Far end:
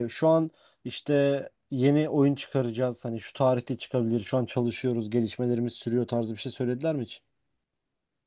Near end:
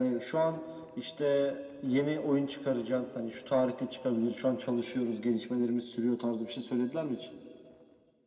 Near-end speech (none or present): none